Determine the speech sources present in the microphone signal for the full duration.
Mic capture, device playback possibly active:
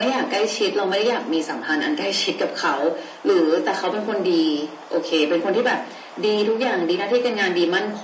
echo only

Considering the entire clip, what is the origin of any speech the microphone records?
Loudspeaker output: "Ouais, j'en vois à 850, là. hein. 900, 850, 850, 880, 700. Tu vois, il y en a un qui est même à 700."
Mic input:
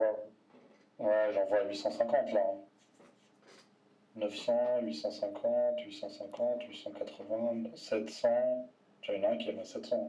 echo only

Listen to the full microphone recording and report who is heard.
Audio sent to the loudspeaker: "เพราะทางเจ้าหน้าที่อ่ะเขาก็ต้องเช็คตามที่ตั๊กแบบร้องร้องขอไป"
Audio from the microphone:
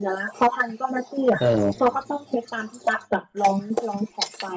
both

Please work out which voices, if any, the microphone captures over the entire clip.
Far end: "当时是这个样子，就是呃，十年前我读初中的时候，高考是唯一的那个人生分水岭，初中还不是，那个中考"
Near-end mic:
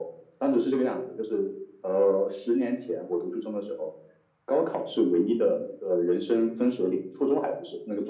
echo only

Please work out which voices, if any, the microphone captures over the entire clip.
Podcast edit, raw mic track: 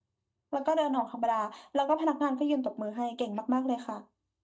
echo only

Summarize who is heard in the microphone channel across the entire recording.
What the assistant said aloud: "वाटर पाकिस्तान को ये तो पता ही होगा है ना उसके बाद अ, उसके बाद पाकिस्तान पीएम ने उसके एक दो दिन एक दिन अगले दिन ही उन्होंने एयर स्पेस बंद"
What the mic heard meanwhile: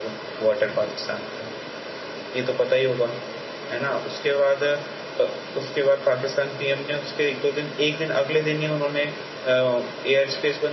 echo only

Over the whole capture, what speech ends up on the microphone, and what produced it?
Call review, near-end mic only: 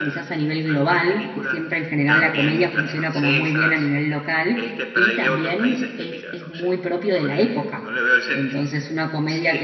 both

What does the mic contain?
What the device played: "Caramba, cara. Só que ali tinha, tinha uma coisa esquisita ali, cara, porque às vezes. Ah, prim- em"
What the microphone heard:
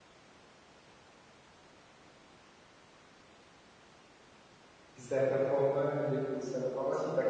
user only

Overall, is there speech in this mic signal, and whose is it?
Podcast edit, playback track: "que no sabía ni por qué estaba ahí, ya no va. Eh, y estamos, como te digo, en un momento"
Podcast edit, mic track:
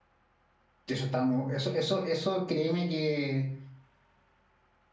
user only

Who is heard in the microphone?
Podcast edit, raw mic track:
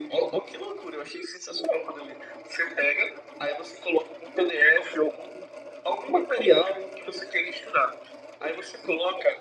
echo only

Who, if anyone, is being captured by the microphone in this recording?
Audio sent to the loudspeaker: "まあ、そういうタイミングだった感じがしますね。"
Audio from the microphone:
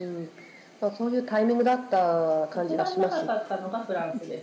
both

